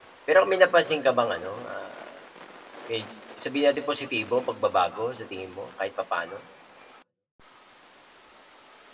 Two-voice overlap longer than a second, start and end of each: none

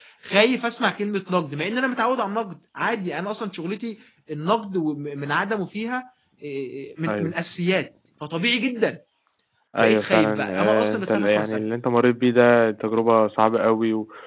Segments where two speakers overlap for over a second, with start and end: 9.8-11.6

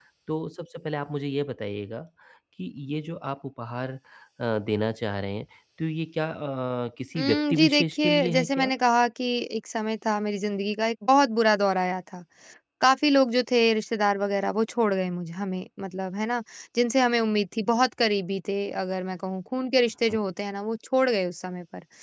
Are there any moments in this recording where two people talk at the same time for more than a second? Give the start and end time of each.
7.2-8.7

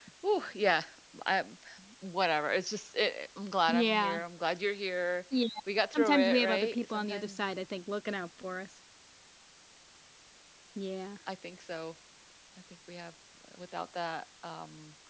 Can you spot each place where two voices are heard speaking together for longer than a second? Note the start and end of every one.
6.0-7.4

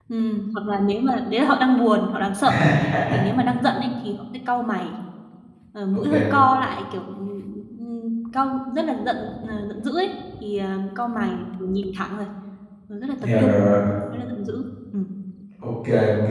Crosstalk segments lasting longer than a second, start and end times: none

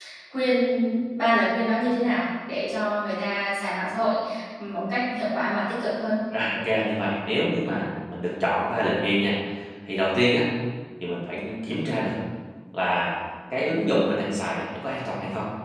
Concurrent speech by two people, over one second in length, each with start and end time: none

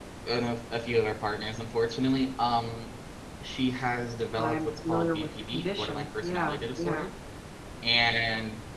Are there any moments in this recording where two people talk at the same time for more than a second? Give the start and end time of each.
4.4-7.1

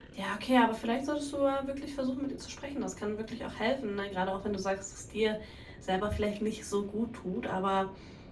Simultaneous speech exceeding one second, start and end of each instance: none

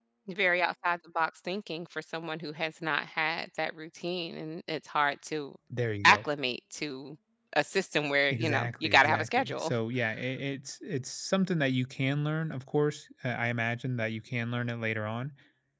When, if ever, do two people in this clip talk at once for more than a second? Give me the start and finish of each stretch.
8.3-9.7

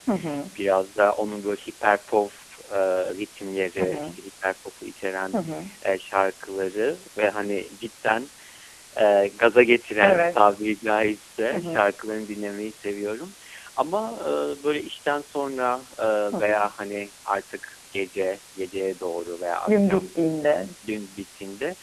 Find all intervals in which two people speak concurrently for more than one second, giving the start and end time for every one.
none

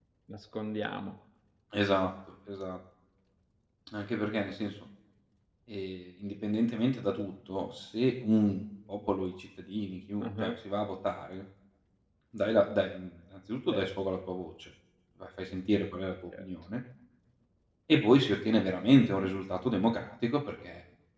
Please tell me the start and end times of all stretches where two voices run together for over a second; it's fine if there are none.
none

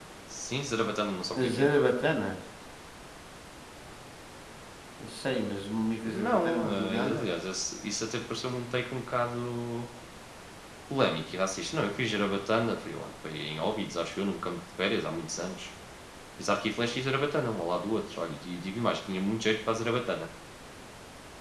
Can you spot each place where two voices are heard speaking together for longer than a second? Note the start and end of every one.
6.0-7.2

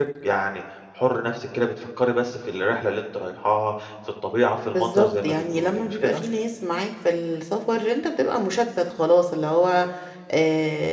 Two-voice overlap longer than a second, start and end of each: 4.7-6.2

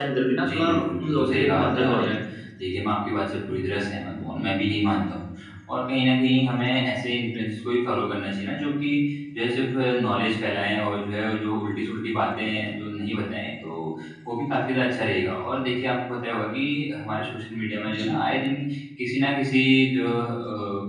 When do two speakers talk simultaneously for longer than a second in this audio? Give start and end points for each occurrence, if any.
0.5-2.1

